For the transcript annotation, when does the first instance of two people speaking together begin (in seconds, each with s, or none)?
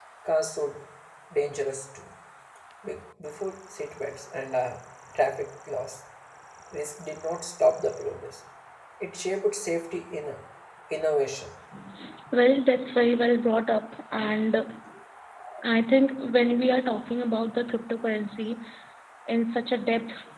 none